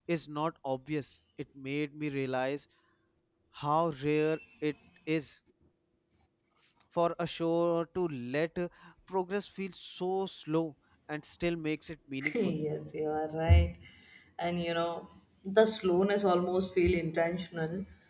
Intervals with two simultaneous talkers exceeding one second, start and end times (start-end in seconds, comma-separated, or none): none